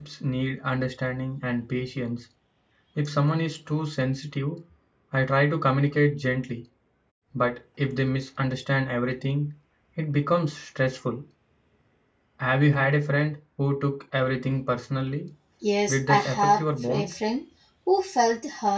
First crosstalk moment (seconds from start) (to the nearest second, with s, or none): 16 s